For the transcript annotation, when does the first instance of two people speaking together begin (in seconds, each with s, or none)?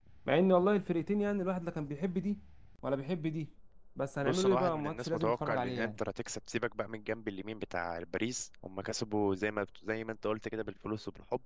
4.2 s